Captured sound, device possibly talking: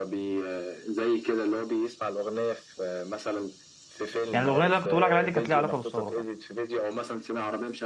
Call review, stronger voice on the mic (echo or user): user